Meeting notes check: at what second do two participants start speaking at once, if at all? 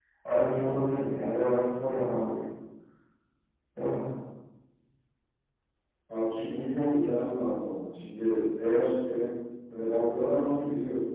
none

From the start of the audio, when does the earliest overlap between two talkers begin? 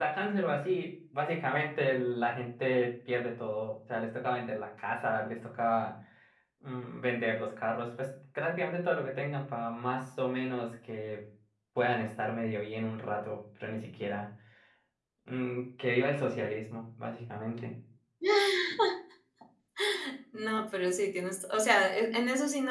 none

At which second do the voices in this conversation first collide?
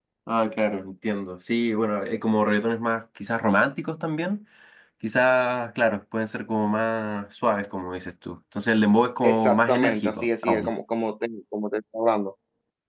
9.2 s

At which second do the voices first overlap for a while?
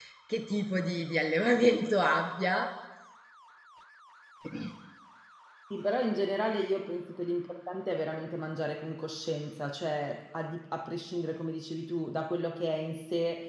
none

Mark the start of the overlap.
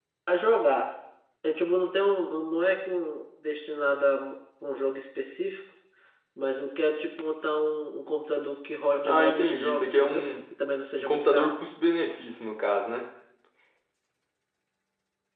9.0 s

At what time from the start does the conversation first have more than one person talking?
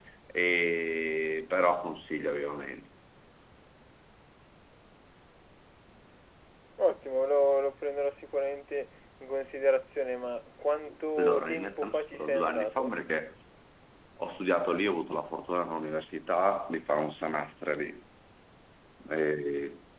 11.2 s

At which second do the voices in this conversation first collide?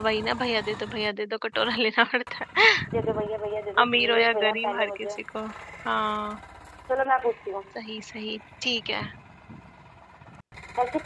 3.8 s

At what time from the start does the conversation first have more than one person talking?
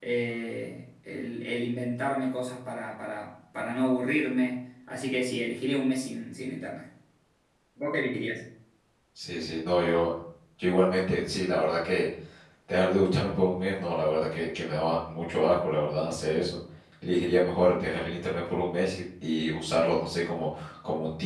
none

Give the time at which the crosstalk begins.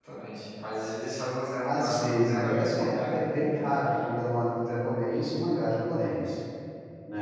1.6 s

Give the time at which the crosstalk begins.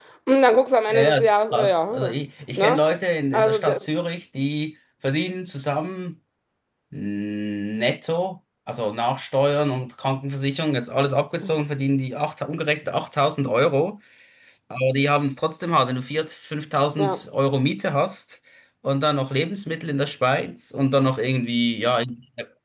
0.9 s

